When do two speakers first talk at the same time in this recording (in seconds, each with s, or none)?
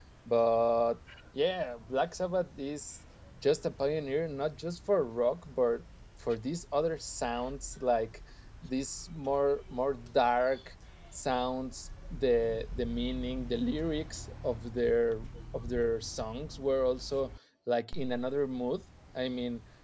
none